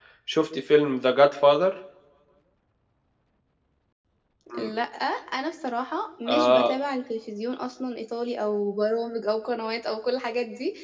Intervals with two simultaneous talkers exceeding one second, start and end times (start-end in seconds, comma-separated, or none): none